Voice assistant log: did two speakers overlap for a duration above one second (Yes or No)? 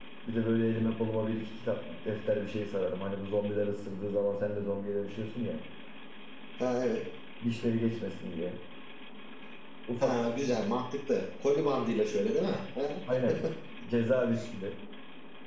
No